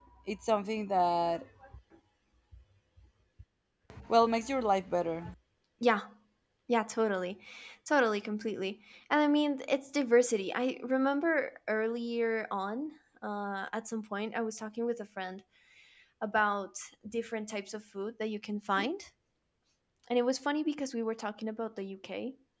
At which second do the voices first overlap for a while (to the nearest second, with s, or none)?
none